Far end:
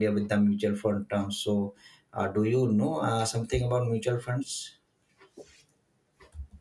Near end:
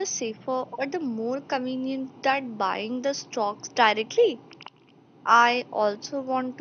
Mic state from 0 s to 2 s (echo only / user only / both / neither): user only